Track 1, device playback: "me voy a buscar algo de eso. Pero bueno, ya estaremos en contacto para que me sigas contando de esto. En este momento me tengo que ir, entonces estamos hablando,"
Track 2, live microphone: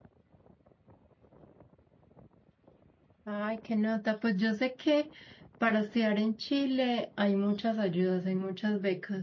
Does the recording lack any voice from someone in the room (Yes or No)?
No